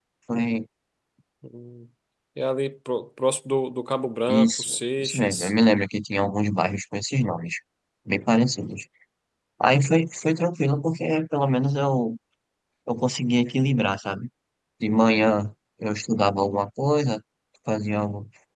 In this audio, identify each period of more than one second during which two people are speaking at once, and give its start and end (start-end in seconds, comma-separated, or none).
4.3-5.5